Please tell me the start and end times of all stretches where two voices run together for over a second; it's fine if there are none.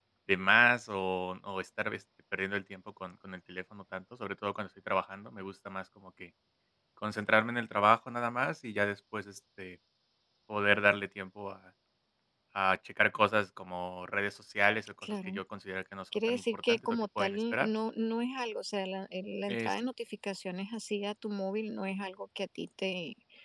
16.3-17.7

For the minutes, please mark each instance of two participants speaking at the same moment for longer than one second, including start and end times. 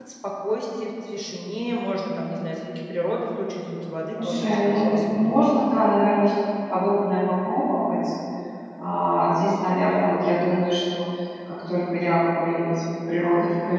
4.2-5.4

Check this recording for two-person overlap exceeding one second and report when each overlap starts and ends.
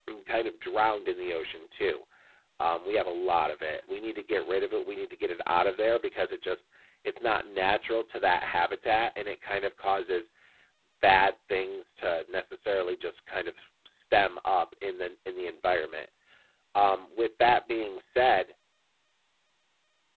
none

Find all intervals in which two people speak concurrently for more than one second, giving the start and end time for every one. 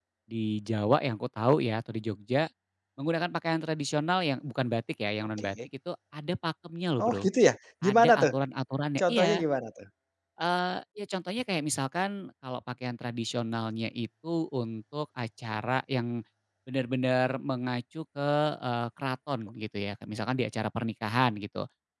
none

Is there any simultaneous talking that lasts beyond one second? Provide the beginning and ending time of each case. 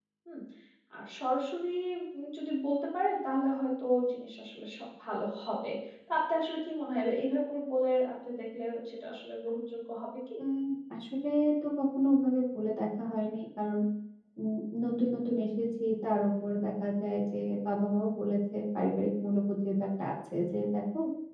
none

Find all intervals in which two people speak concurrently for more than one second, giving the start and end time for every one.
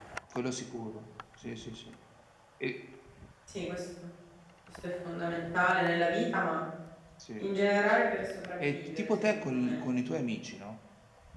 8.6-9.8

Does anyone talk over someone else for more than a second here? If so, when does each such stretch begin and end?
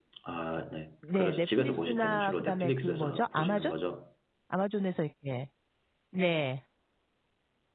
1.1-3.7

